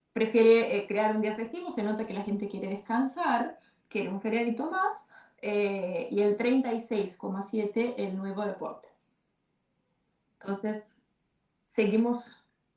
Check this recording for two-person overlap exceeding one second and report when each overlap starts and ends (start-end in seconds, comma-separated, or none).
none